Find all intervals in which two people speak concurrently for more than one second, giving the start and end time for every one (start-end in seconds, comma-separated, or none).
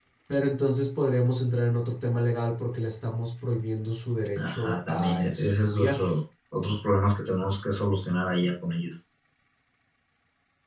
4.3-6.0